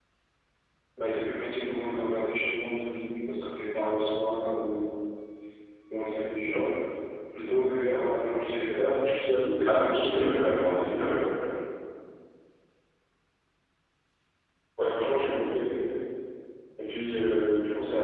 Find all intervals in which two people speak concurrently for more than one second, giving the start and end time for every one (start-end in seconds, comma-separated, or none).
9.6-11.2